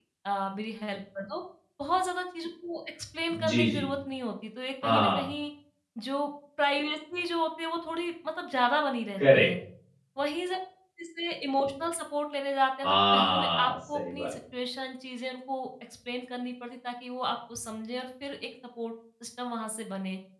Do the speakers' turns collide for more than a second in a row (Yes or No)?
Yes